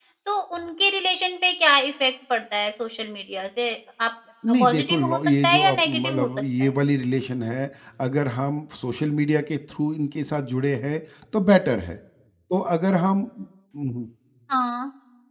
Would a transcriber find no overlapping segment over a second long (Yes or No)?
No